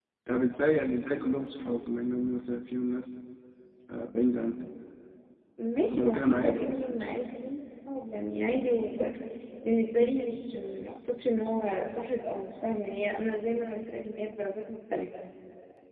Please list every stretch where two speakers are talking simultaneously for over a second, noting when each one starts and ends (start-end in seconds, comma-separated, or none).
5.9-7.2